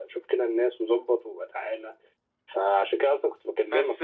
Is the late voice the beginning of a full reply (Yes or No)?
Yes